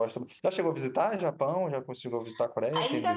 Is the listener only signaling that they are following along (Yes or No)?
No